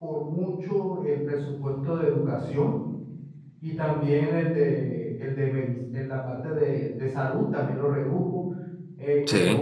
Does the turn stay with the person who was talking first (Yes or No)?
Yes